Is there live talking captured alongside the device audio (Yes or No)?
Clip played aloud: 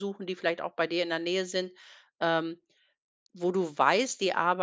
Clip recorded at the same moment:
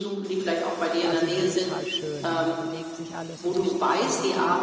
Yes